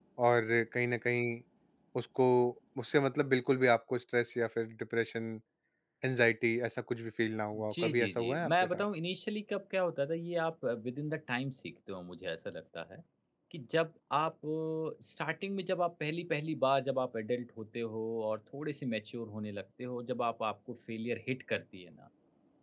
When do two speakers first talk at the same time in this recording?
7.5 s

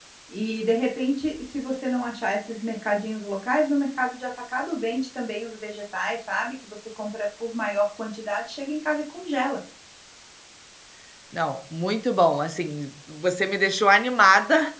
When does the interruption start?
none

